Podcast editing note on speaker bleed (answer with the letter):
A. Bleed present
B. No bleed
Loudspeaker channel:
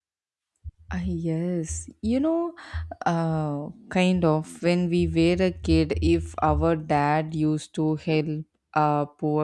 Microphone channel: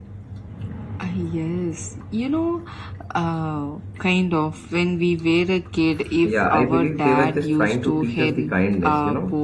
A